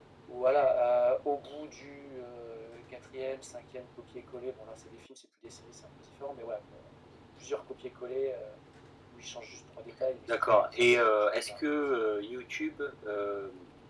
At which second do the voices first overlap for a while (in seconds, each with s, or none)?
10.3 s